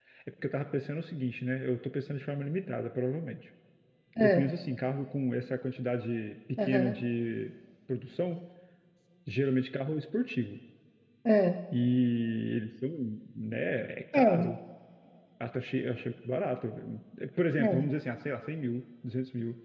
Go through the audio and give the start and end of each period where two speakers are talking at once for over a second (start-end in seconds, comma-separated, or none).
none